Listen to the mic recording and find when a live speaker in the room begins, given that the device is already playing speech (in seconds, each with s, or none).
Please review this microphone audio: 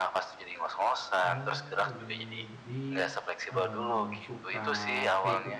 1.2 s